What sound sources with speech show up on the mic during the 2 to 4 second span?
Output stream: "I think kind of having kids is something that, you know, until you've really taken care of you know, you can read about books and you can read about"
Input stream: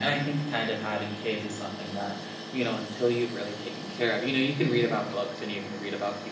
echo only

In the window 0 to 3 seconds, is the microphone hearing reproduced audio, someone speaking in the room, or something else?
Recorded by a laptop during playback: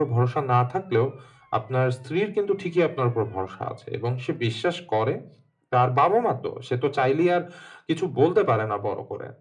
echo only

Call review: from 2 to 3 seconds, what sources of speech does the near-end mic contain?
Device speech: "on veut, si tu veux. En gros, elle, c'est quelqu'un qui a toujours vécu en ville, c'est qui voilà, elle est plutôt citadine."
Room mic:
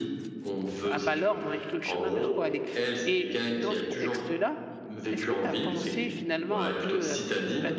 both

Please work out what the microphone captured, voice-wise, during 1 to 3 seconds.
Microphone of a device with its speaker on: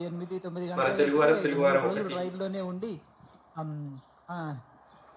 both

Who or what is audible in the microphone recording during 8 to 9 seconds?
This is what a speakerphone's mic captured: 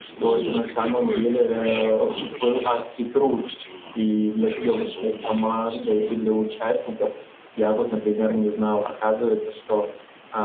echo only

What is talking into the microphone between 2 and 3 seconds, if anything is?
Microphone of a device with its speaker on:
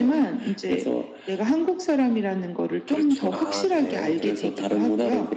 echo only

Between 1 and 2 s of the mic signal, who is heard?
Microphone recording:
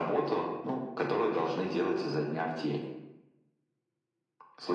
echo only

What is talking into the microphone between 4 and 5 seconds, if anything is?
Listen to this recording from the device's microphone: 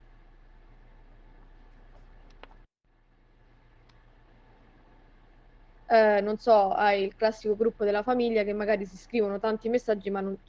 neither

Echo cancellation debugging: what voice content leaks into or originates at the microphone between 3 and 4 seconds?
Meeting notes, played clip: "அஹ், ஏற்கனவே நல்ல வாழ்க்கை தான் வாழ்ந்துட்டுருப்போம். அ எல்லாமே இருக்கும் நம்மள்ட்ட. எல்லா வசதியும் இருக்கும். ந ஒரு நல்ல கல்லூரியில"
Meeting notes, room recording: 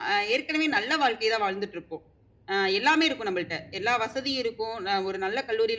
echo only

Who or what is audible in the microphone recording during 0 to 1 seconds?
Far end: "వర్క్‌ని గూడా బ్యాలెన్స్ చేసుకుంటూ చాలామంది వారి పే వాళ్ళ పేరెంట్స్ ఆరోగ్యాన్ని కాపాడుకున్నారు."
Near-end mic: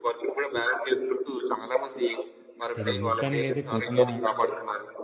echo only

